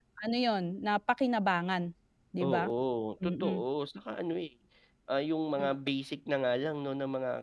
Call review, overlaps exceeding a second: none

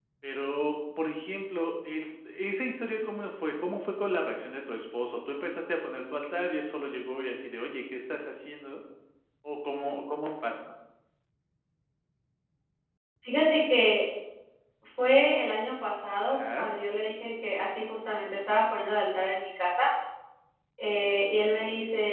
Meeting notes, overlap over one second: none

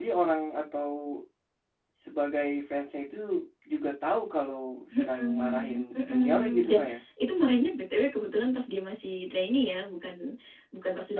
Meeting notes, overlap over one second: present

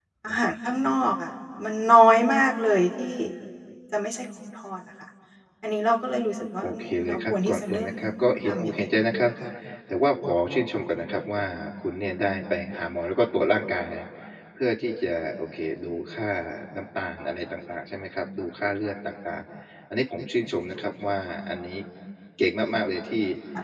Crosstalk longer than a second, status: present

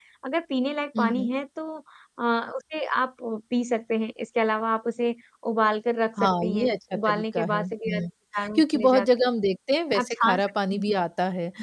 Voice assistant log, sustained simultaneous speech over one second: present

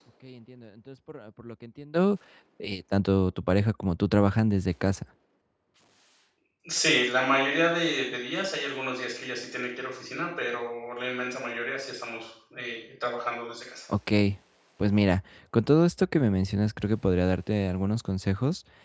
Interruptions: none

